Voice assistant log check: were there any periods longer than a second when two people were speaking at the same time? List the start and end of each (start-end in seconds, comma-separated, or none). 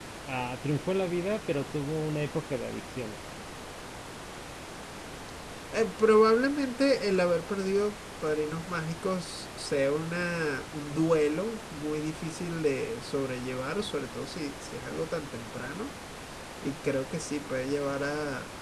none